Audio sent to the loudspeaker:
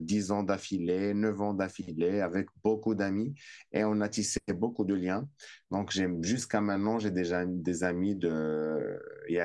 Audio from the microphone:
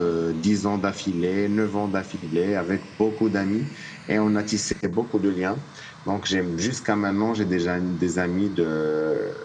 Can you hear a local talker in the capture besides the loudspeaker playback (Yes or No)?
No